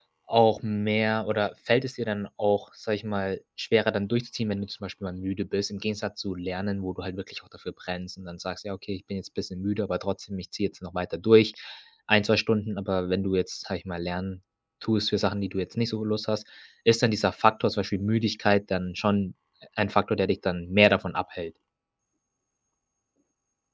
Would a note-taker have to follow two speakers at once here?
No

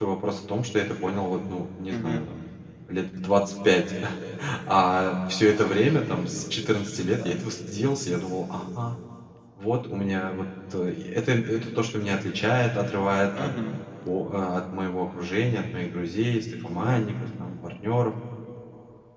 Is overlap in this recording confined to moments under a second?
Yes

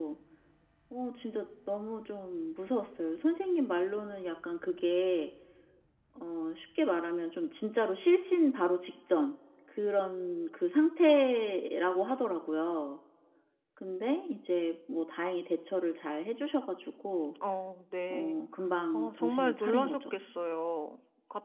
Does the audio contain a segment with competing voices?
Yes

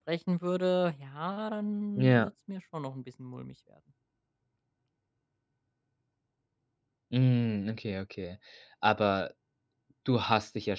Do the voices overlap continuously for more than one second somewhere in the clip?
No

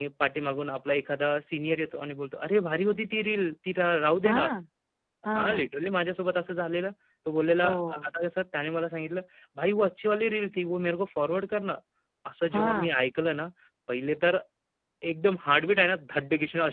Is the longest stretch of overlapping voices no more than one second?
Yes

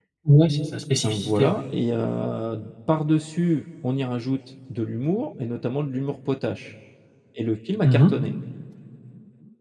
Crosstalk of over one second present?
No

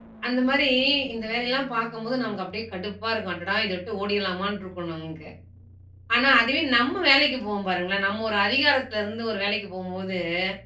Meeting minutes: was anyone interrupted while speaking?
No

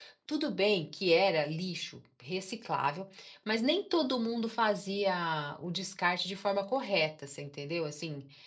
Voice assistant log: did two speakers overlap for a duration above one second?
No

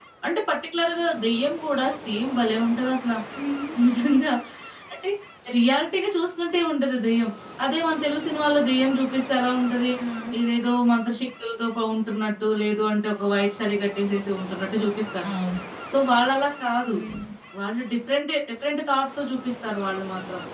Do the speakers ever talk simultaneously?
No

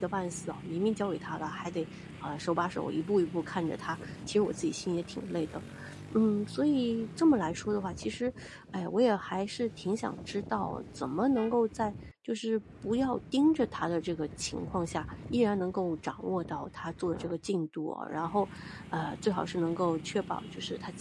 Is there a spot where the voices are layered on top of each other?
No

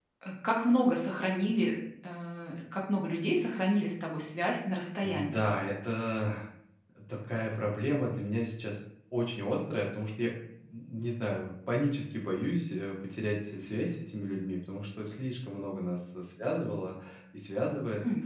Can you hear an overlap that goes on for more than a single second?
No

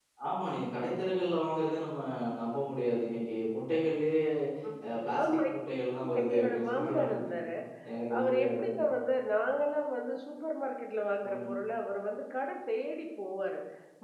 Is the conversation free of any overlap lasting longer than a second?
No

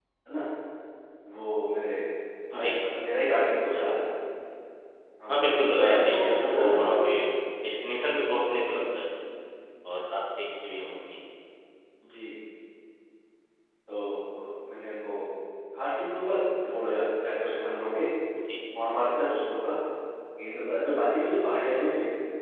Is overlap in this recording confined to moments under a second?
No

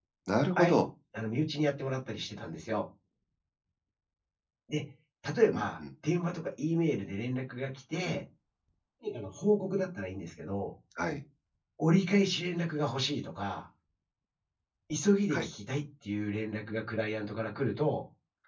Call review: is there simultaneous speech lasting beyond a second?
No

